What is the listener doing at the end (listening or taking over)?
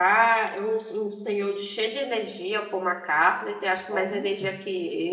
listening